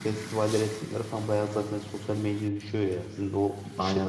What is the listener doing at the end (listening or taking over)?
taking over